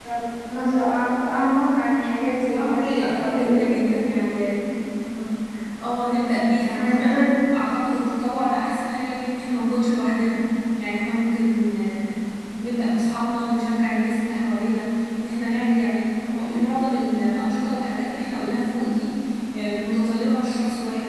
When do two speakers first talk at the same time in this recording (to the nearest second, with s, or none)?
2 s